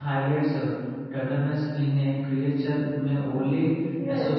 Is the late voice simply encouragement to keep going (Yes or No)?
No